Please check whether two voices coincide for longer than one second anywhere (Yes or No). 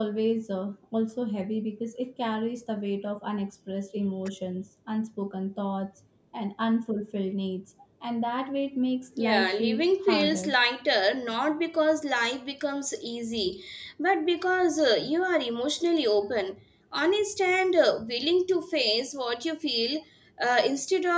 Yes